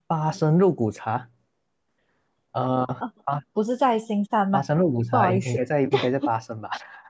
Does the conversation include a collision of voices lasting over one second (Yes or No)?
No